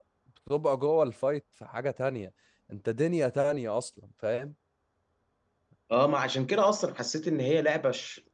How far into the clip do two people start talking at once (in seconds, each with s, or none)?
none